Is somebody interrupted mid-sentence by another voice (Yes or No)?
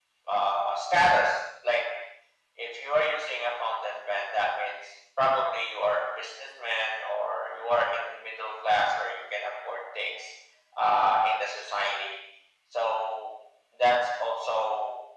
No